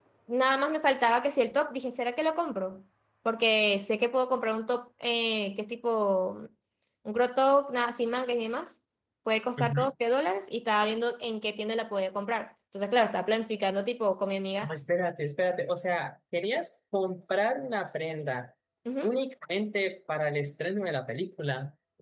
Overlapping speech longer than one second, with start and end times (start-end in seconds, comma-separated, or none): none